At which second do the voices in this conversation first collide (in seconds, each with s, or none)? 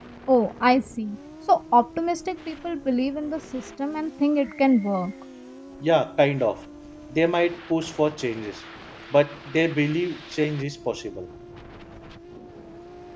none